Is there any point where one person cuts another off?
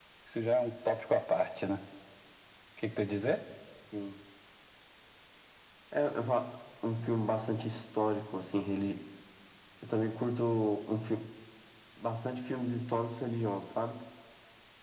No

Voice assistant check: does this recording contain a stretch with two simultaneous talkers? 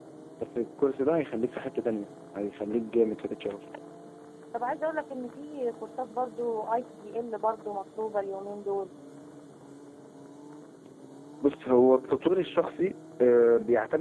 No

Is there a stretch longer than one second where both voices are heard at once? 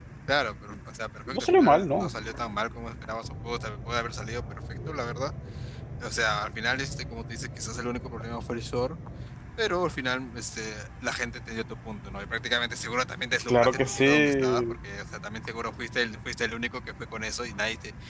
Yes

